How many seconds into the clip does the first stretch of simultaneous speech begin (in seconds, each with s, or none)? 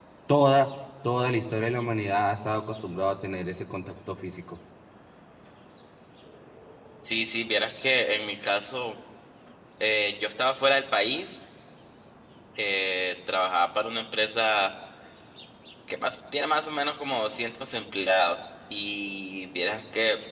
none